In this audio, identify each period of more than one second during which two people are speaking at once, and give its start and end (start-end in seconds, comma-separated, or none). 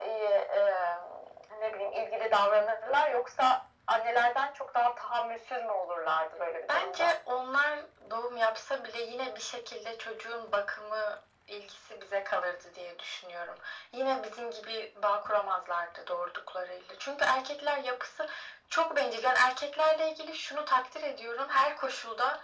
none